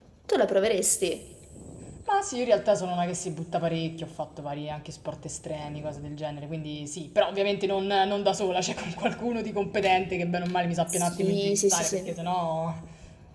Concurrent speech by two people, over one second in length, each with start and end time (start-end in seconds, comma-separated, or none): 10.9-12.1